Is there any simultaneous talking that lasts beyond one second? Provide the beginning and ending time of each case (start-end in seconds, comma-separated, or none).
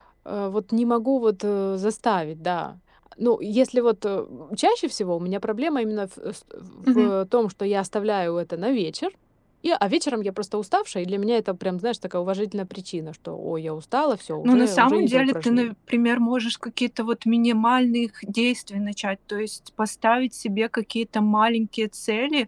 14.4-15.7